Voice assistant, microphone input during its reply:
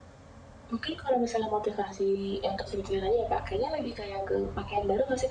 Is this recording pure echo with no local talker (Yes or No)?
Yes